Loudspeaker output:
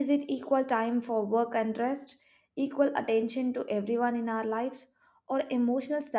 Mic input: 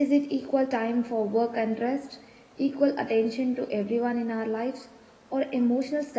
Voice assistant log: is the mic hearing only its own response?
Yes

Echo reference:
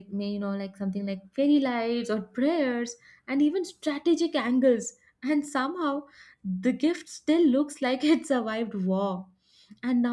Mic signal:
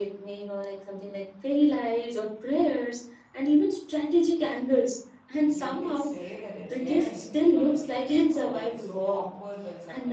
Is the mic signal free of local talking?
No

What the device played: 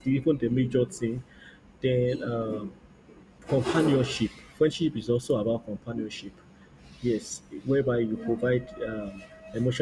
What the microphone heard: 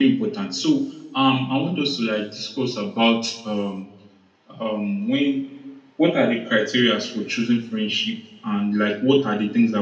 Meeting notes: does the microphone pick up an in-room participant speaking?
Yes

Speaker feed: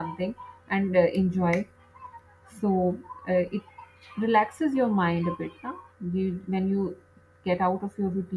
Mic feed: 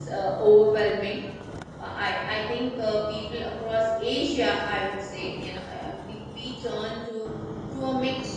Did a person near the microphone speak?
Yes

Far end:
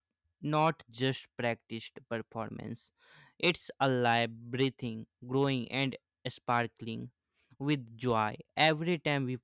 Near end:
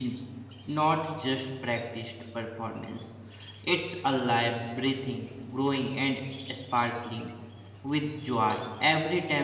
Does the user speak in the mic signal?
No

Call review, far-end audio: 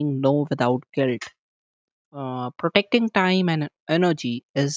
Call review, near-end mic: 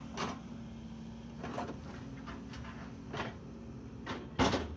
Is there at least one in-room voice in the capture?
No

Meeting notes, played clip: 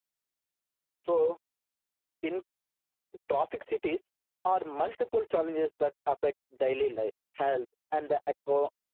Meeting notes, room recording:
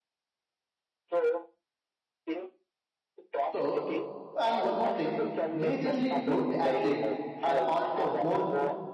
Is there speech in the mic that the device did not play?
Yes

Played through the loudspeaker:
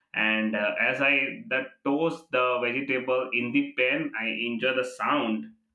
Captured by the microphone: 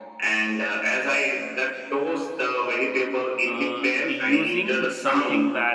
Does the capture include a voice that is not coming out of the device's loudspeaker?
Yes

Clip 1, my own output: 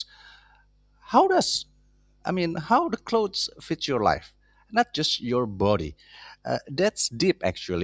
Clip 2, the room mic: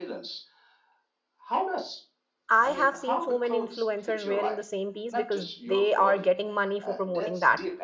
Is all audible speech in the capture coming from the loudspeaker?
No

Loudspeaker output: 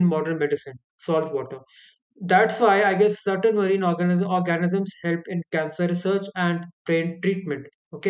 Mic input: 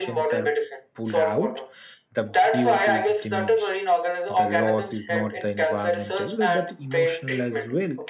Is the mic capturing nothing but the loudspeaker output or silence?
No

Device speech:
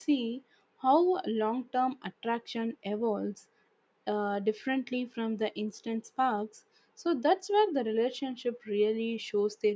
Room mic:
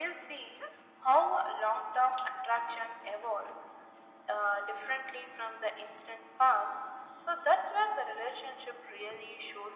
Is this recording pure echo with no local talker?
Yes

